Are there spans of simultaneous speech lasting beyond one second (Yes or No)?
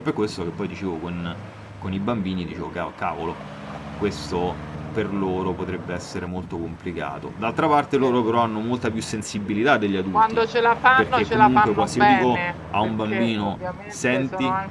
Yes